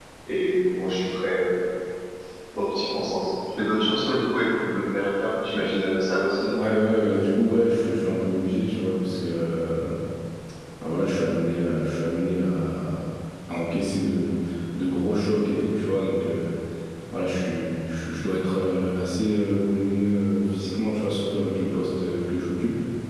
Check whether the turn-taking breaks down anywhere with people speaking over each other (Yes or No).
No